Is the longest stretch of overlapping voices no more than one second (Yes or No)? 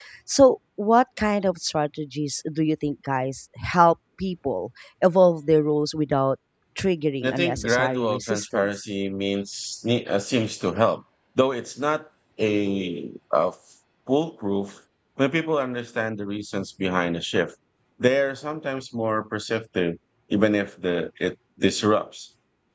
No